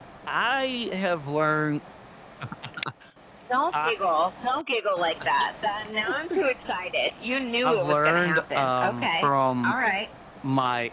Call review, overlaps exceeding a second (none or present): present